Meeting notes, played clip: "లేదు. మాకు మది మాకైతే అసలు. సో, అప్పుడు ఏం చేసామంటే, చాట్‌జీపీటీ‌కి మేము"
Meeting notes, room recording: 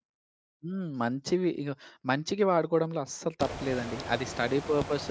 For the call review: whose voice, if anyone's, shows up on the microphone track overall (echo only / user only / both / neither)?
user only